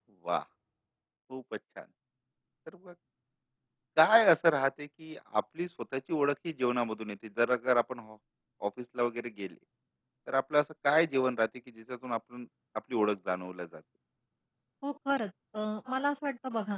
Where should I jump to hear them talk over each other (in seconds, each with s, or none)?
none